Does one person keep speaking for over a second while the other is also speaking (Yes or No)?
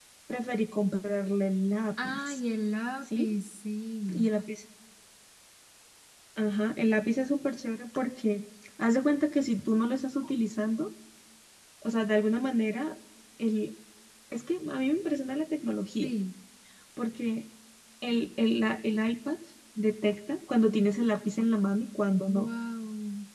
No